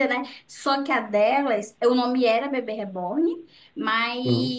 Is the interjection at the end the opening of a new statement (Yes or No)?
No